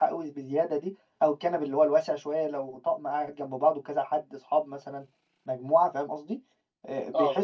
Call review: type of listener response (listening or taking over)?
listening